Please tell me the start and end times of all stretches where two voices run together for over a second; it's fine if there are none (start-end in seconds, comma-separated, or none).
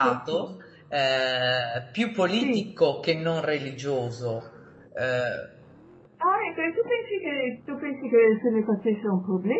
none